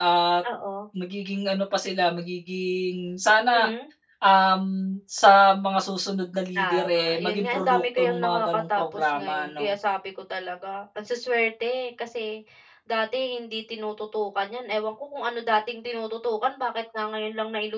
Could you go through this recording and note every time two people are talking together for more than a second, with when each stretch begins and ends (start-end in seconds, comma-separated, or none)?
6.6-9.7